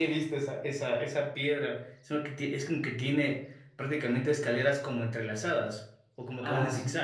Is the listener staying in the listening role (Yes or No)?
No